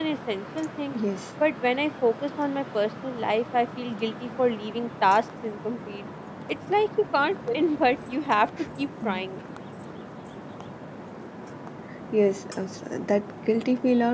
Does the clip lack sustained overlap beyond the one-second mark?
Yes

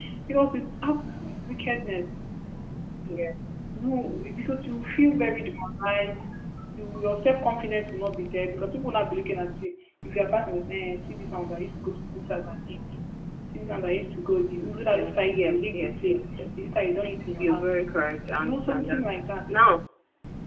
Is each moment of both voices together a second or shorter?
No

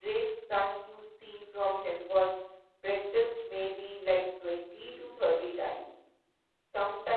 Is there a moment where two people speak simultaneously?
No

